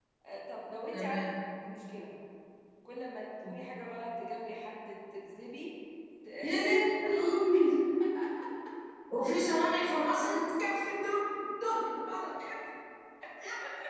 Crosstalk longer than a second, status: none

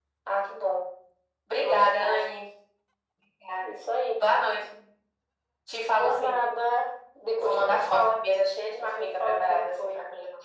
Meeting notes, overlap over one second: present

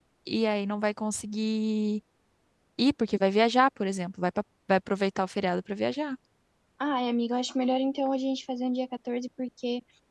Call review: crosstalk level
none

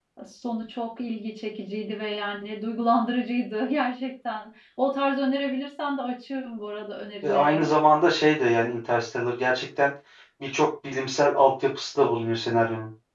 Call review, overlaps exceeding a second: none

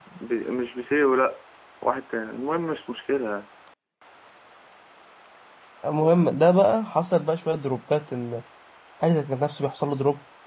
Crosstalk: none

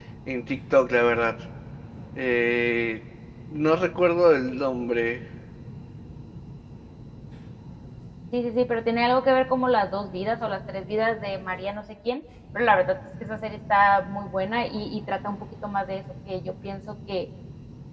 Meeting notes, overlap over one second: none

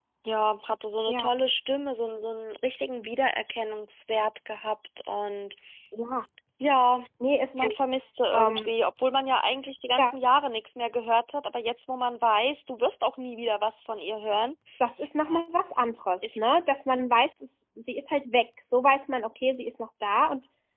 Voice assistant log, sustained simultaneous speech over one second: none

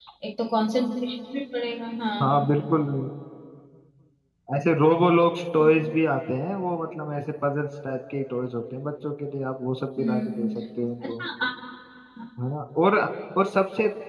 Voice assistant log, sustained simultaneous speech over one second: none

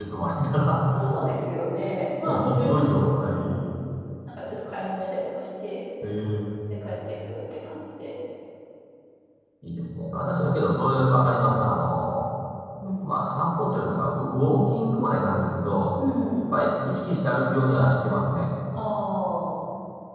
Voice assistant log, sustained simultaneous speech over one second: present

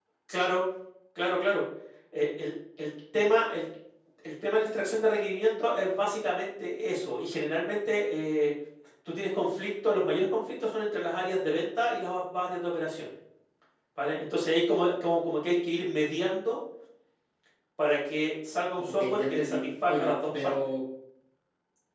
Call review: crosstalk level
present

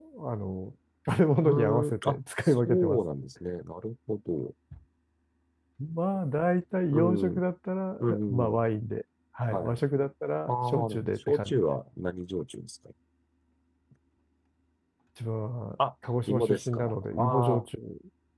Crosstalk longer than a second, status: present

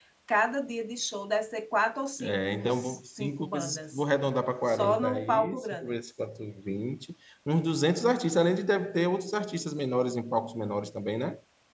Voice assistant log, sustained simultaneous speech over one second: present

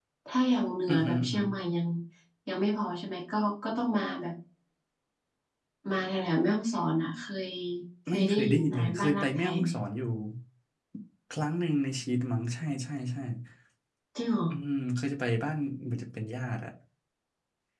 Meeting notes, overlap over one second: present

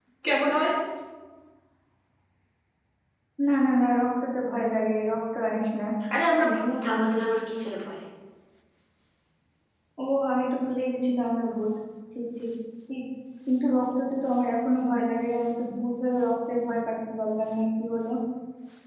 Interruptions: none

